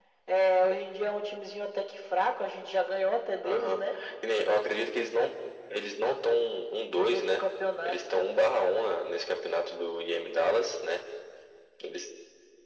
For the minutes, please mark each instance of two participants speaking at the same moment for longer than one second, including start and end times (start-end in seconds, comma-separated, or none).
none